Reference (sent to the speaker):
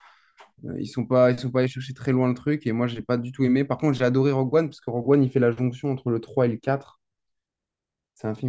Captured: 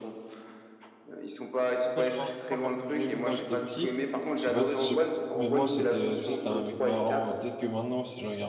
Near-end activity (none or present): present